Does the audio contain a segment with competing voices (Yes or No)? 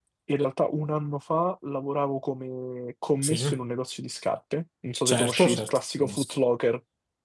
Yes